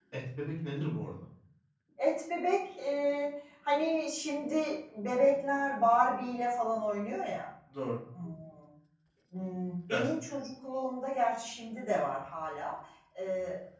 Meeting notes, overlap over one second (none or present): none